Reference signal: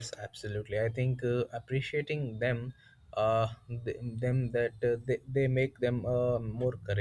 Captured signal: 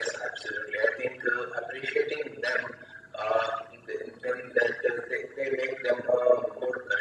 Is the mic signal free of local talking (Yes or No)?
Yes